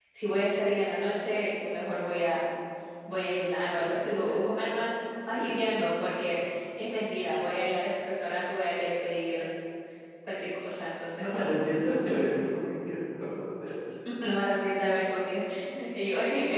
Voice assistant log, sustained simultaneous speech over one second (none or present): none